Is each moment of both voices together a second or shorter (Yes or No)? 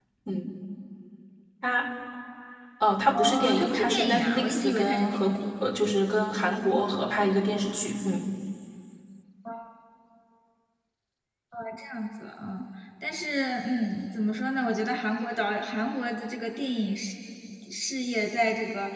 No